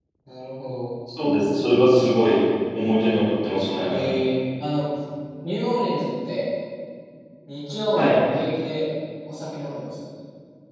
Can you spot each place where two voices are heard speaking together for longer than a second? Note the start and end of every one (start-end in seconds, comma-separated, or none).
none